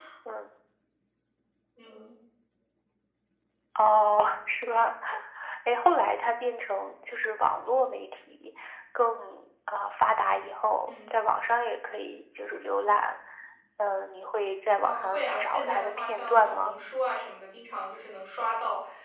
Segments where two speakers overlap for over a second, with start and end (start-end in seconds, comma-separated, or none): 14.8-16.7